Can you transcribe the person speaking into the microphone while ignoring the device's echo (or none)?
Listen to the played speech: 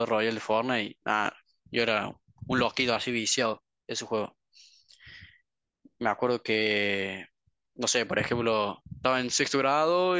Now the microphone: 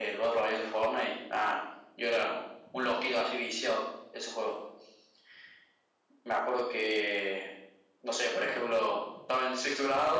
none